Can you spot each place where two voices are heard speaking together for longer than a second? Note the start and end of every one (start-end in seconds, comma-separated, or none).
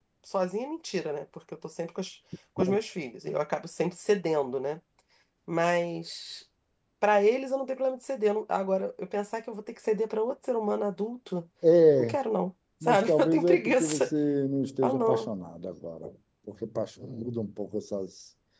12.8-14.1